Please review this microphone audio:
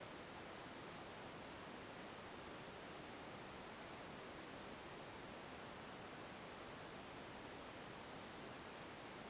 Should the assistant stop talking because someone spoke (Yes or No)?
No